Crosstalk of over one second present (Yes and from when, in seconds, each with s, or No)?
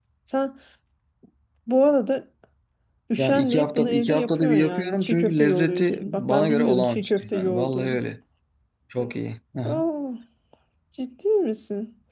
Yes, from 3.2 s